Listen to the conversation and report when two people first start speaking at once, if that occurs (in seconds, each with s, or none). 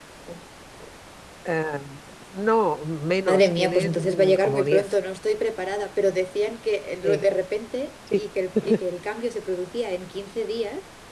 3.3 s